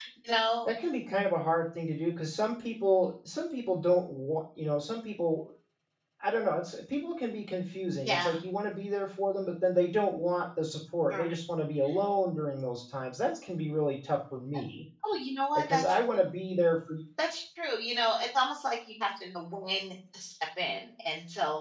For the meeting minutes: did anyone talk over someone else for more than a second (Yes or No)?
No